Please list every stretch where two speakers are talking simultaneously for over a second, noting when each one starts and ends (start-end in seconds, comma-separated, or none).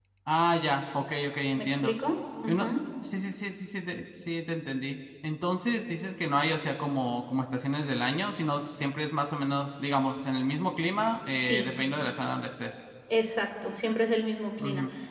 none